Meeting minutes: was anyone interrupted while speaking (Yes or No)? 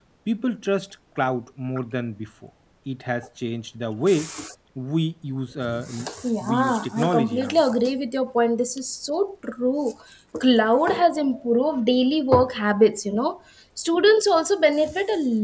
Yes